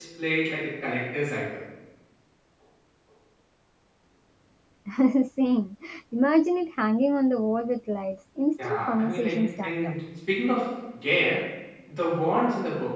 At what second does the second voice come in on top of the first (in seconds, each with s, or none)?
8.6 s